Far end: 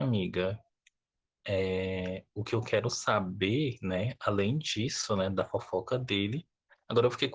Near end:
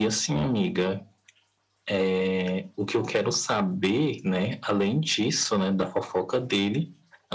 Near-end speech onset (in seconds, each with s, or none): none